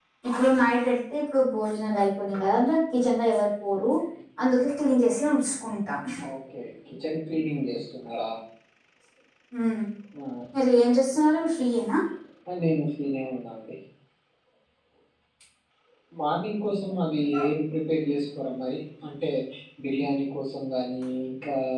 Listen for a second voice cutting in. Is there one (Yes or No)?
No